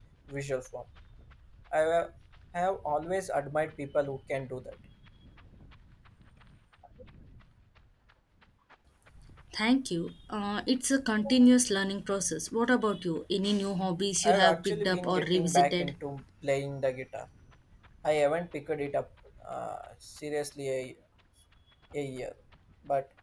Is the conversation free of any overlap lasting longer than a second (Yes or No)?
No